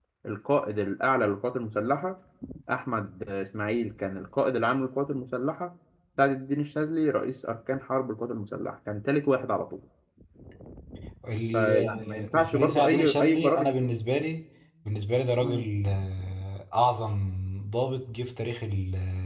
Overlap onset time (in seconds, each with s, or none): 11.5 s